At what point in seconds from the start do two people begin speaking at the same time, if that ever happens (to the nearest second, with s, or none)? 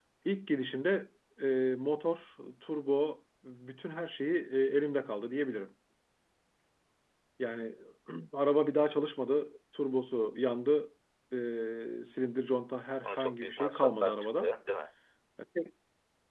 13 s